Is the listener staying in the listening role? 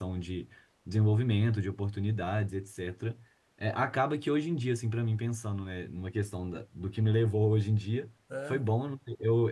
Yes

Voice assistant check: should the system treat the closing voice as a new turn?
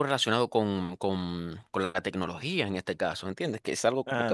No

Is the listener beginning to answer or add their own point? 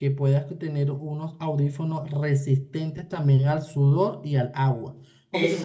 No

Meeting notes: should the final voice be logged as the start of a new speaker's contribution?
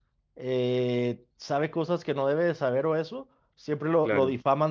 No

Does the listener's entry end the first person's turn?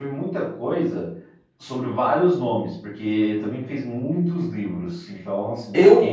Yes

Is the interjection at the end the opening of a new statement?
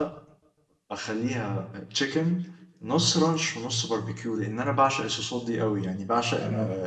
No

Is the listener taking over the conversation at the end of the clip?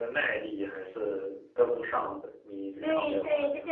Yes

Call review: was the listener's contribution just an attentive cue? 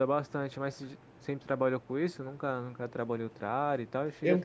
Yes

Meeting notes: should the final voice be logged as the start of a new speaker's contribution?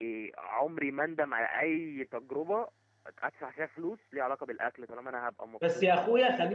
Yes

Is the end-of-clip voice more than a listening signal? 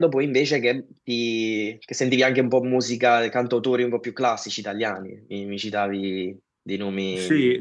Yes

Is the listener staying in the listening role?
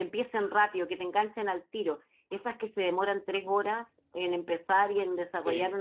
Yes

